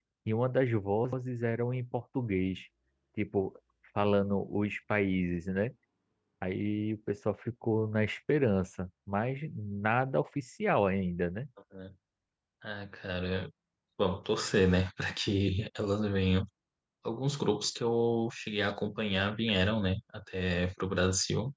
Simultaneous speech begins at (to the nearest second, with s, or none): none